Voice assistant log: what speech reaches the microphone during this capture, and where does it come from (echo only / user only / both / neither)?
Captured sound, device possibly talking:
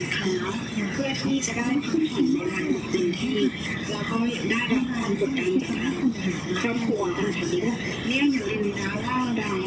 echo only